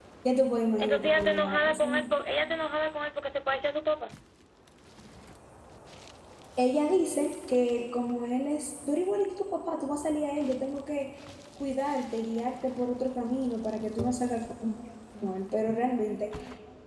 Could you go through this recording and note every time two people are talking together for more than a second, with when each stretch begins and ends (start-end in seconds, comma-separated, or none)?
0.8-2.1